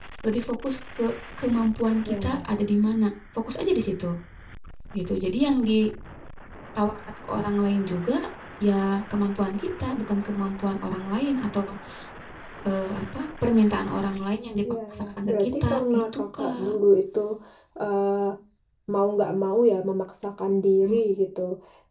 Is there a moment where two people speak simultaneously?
Yes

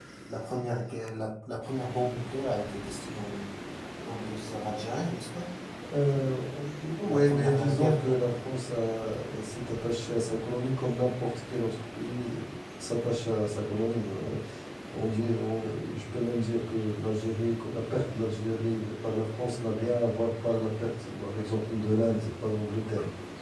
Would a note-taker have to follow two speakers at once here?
Yes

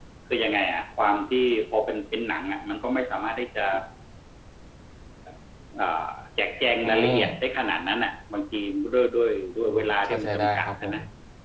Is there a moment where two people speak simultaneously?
Yes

